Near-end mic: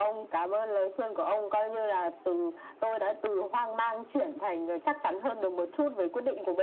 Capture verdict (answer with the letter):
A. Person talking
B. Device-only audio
B